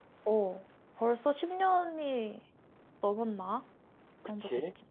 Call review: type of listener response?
taking over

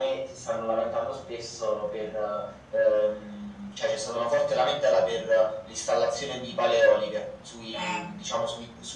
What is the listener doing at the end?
listening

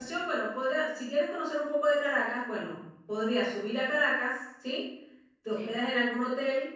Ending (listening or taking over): listening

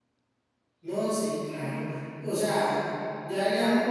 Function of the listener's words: listening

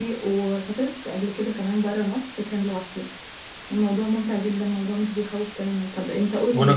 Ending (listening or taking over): taking over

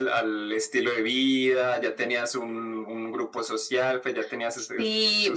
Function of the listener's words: taking over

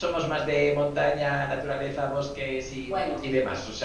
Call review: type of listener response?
taking over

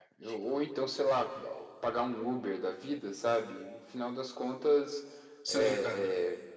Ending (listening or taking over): listening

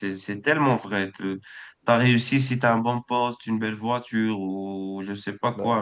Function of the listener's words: listening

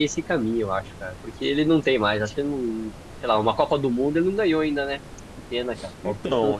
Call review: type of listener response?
taking over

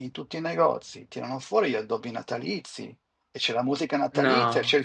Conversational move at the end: listening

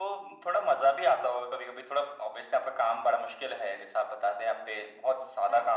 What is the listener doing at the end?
listening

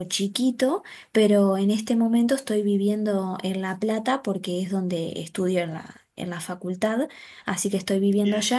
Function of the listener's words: listening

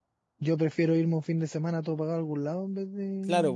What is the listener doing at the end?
taking over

